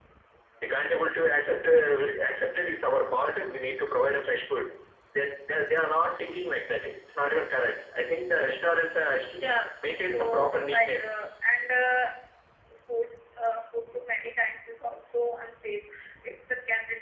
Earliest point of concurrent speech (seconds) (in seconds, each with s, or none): 9.8 s